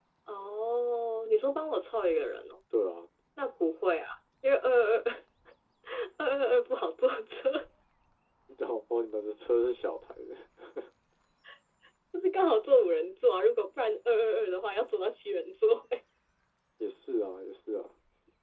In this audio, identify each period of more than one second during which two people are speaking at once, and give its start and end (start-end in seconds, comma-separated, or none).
none